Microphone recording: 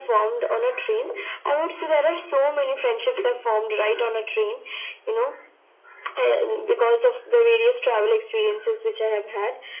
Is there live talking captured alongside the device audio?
No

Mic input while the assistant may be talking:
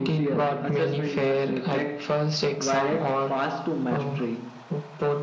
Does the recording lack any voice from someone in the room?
Yes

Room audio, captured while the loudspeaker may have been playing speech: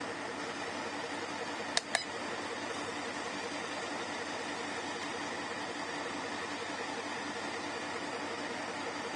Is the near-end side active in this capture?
No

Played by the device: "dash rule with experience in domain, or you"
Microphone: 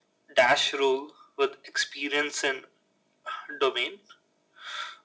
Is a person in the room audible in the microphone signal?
No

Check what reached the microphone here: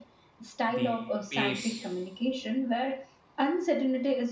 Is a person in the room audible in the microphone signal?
Yes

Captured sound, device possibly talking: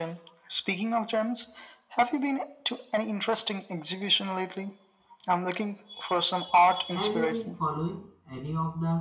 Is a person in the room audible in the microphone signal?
Yes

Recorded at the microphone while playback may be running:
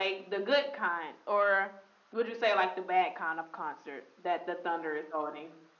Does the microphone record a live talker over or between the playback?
No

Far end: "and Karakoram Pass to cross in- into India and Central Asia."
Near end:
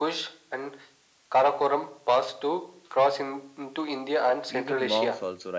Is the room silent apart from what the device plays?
No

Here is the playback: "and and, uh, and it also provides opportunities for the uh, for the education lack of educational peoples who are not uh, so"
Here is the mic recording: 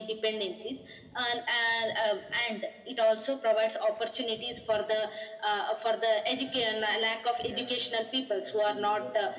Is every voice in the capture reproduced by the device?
No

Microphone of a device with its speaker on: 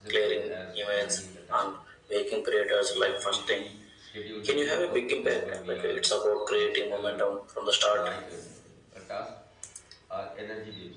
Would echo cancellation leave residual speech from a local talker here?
Yes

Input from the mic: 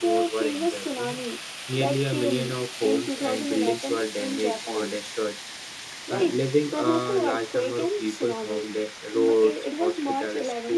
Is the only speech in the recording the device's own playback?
No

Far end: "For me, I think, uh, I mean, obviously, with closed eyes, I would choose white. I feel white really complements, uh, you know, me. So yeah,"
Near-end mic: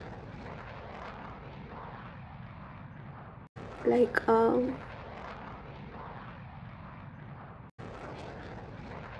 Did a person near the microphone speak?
Yes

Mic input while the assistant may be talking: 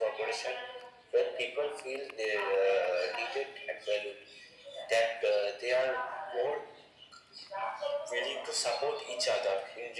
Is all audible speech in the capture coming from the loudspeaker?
Yes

